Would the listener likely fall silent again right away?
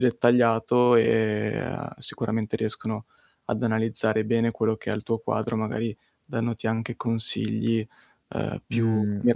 No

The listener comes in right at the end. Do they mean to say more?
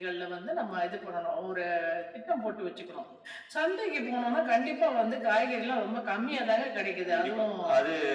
Yes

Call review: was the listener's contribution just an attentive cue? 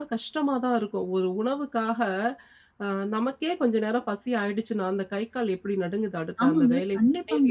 Yes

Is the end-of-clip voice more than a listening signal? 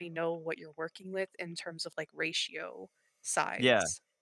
Yes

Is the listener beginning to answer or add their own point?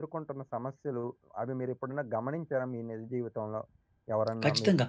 Yes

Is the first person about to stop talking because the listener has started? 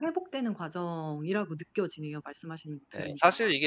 Yes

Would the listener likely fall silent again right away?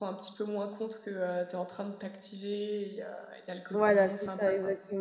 No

